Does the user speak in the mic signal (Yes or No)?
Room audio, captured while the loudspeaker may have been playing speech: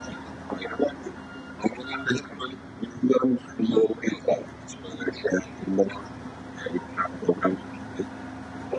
No